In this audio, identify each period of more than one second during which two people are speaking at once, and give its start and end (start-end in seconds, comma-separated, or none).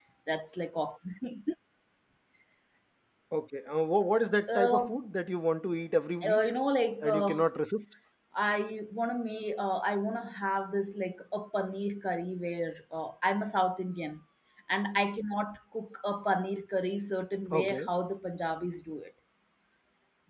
none